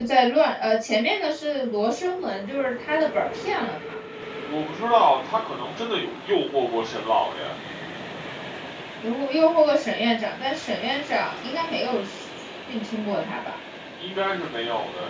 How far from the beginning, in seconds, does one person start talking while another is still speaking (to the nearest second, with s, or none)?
none